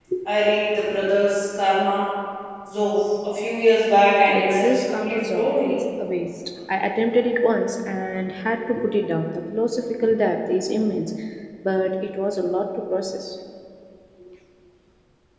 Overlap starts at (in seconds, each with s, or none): 4.3 s